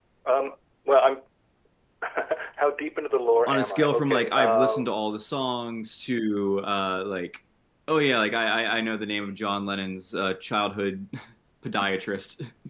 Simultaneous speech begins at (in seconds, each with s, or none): 3.5 s